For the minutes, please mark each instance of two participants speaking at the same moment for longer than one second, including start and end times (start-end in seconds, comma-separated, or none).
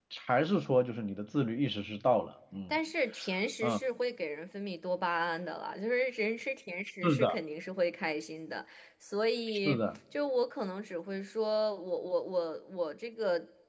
none